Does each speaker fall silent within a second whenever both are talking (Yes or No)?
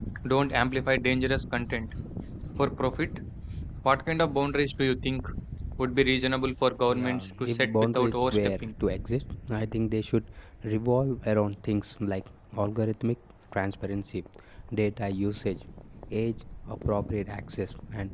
No